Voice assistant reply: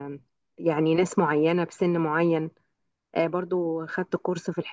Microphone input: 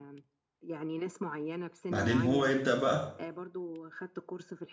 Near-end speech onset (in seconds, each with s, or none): 1.9 s